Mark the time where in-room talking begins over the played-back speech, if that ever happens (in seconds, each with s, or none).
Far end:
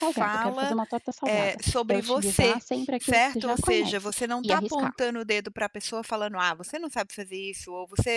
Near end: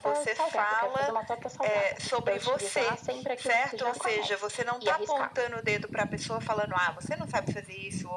none